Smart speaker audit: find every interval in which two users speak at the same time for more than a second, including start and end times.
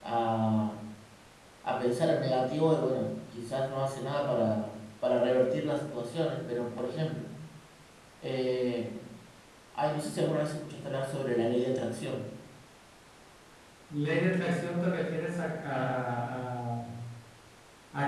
none

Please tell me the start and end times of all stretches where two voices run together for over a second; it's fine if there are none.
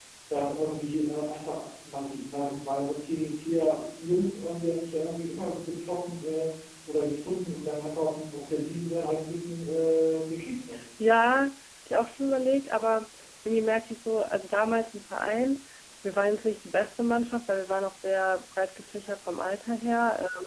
none

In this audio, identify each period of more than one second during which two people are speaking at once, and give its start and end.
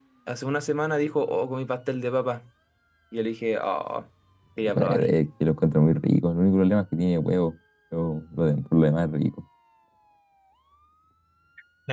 none

